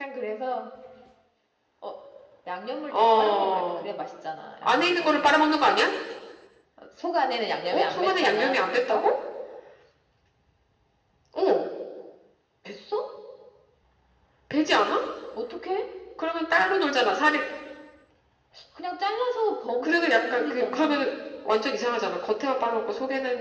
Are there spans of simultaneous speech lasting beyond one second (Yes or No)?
Yes